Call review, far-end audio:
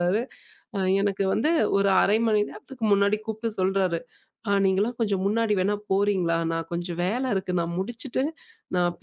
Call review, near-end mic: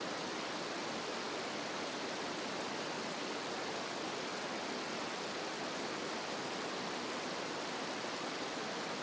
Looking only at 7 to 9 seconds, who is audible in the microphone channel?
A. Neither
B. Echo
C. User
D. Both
A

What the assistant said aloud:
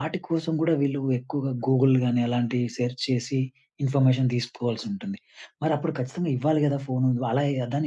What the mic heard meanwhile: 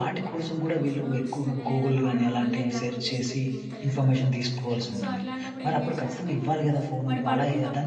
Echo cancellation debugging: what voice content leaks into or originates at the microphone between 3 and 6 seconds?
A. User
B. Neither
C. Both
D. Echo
C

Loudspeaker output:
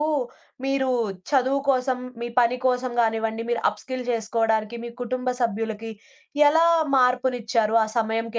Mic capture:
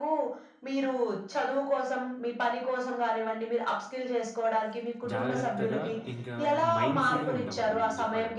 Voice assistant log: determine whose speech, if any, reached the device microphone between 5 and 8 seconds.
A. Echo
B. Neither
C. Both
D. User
C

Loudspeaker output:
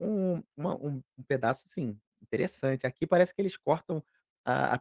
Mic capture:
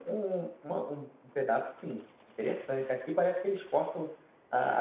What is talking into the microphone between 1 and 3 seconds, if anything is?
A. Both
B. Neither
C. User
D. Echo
D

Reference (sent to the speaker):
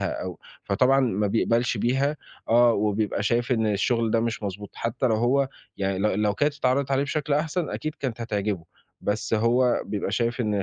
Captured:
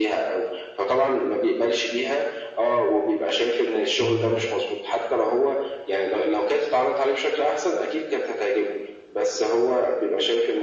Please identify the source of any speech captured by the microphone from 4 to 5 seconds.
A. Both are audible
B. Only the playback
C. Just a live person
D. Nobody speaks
A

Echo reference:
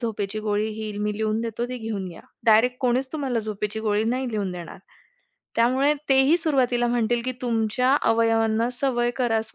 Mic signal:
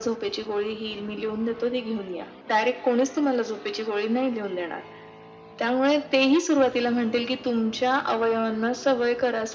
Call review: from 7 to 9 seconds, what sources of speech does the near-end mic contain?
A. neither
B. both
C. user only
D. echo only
D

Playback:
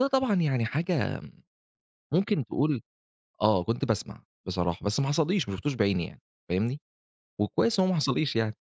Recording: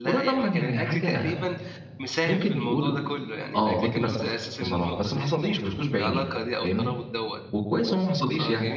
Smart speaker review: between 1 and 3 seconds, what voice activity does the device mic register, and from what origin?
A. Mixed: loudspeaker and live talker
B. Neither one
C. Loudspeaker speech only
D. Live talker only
A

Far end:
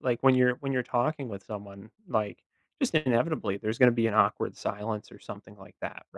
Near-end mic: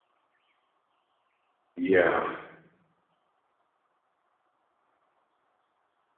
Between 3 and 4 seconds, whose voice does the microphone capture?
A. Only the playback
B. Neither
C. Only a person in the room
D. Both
B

